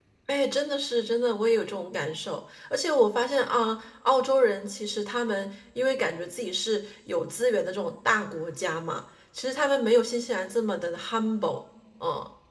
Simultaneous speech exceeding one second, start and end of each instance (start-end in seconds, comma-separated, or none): none